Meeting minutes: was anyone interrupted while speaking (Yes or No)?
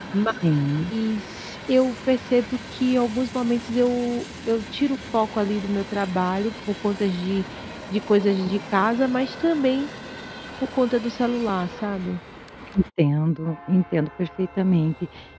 No